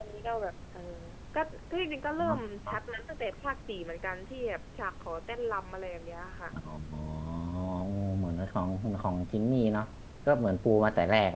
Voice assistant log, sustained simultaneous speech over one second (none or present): none